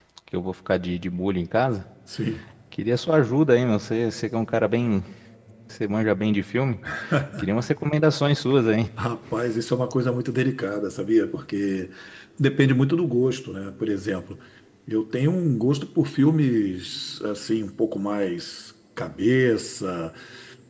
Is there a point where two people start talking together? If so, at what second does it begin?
none

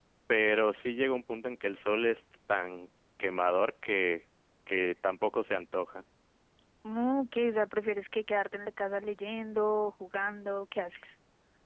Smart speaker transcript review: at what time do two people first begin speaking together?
none

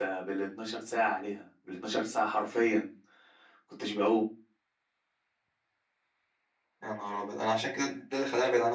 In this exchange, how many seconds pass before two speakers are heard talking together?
none

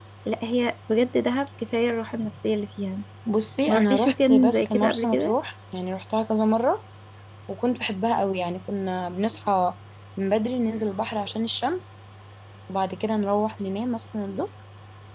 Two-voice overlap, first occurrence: 3.7 s

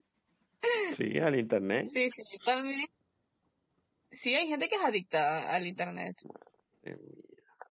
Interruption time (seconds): none

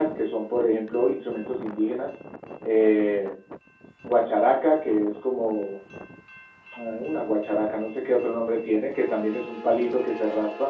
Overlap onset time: none

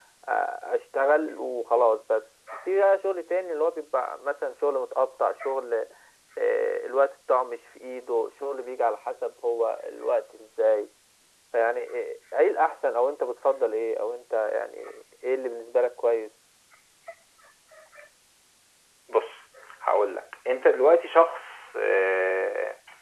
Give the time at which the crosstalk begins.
none

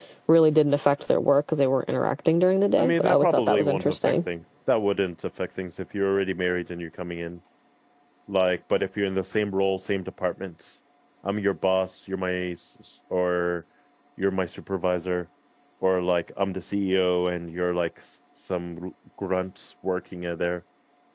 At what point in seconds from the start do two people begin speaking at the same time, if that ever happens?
2.8 s

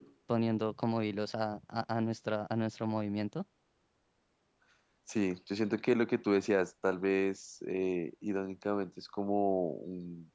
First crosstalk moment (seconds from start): none

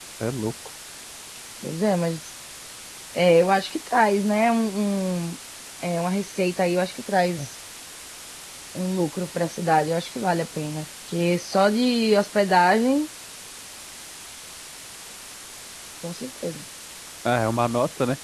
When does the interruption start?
none

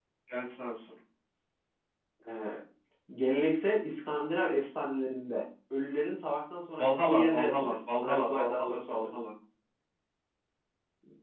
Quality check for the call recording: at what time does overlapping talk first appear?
6.8 s

